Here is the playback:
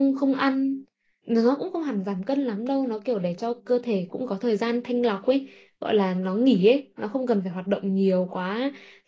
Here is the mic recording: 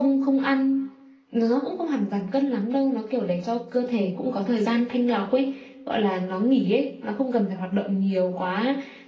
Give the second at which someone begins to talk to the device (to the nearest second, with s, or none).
none